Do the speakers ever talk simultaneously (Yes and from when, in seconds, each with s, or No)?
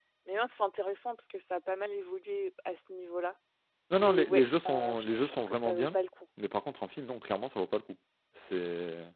Yes, from 4.0 s